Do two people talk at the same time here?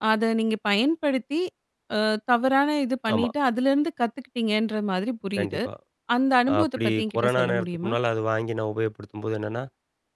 Yes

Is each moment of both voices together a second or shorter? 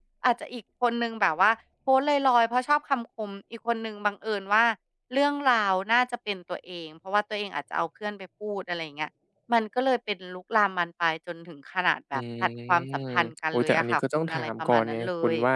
No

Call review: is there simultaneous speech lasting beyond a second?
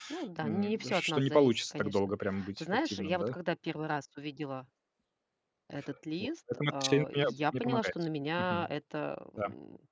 Yes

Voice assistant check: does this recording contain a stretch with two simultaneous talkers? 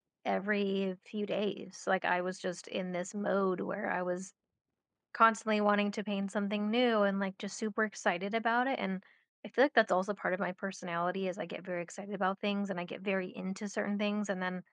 No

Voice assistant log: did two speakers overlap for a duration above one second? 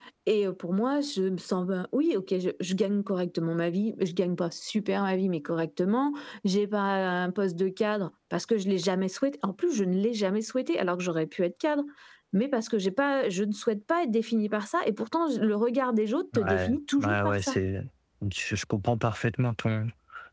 Yes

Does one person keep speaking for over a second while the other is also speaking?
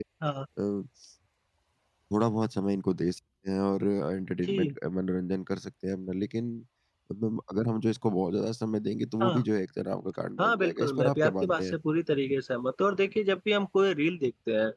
Yes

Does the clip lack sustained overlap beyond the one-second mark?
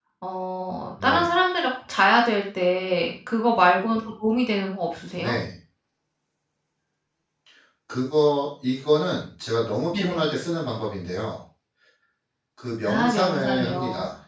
No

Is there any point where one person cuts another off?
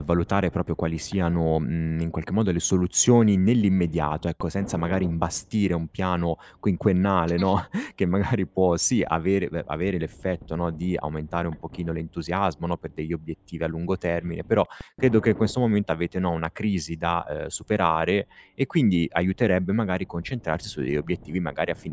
No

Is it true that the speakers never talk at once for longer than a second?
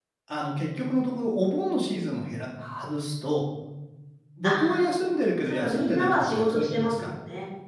No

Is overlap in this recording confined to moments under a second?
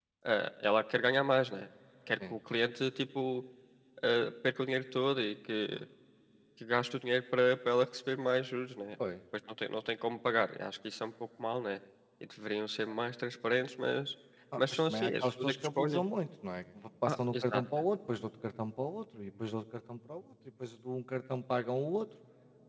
No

